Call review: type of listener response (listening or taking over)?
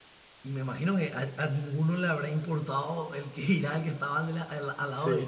listening